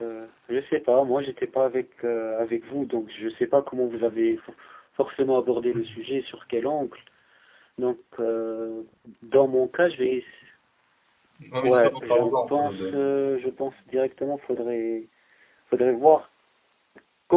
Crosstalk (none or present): present